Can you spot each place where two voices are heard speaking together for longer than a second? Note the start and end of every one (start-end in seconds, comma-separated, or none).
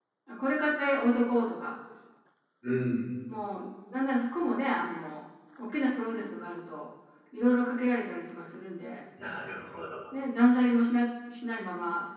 none